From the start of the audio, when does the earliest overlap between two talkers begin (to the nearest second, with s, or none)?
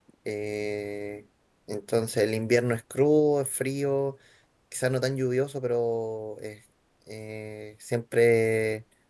none